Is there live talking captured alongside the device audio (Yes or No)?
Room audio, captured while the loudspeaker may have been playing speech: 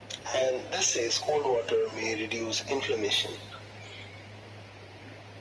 No